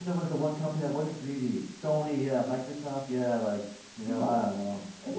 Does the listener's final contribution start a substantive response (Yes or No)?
Yes